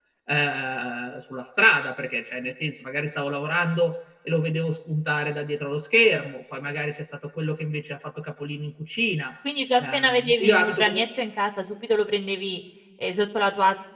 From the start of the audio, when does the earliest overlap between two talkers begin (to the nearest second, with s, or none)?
10 s